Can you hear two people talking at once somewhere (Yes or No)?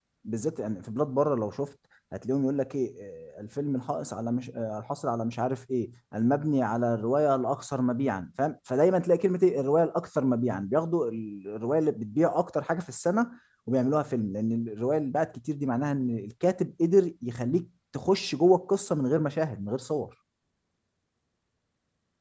No